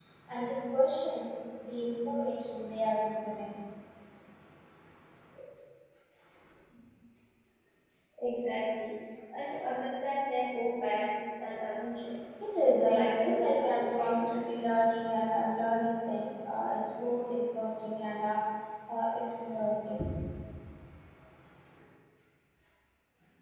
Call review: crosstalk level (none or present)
present